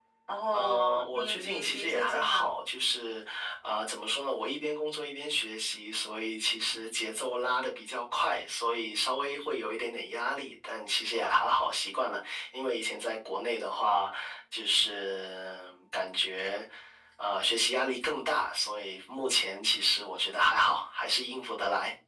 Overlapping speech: Yes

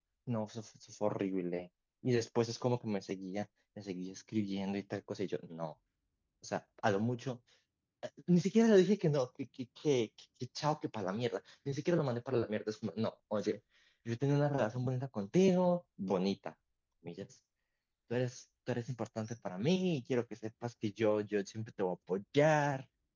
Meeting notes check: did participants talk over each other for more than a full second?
No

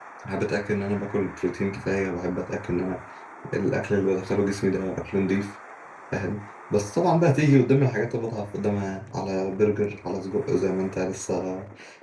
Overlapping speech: No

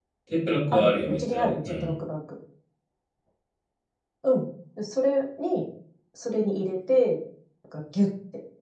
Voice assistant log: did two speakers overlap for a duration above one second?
Yes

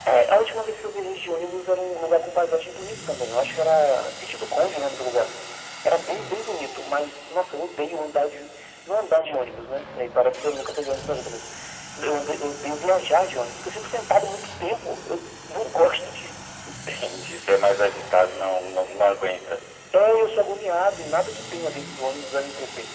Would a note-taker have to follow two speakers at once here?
No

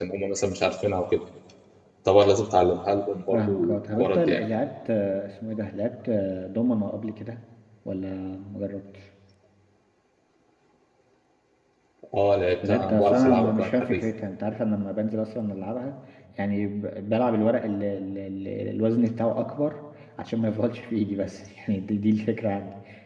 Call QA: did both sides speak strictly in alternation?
No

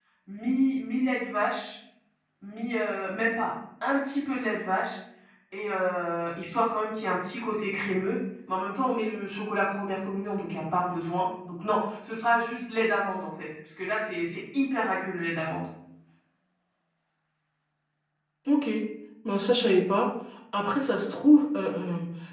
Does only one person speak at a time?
Yes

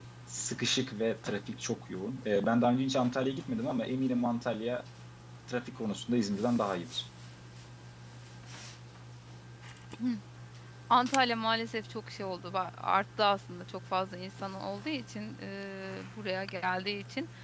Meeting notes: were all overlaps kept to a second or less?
Yes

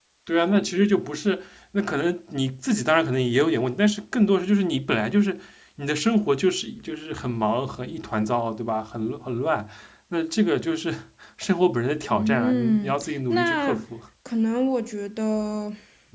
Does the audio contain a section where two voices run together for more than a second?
Yes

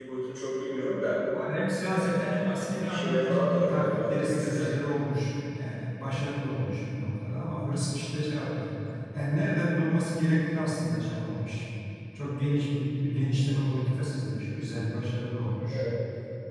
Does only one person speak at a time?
No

